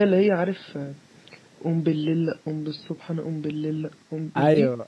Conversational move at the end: taking over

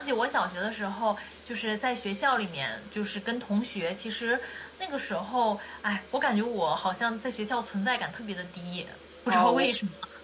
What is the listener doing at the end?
taking over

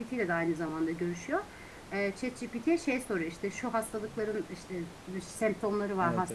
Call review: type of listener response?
listening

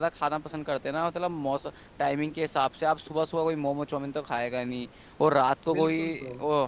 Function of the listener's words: listening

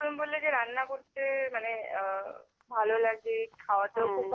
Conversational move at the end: listening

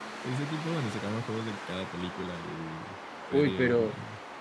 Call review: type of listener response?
taking over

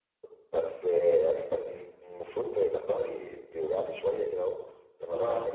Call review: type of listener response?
listening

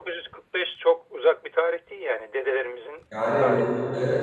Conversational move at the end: taking over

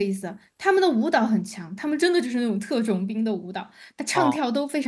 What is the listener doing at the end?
listening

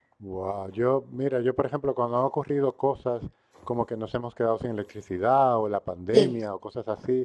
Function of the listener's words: listening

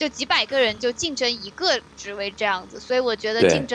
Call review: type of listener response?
listening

